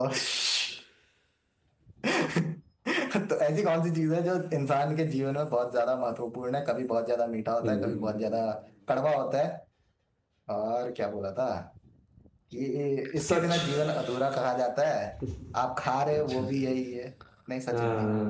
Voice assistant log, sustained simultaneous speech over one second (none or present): none